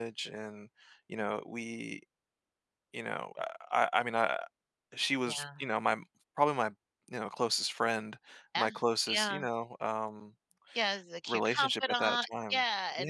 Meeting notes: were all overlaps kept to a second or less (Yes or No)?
No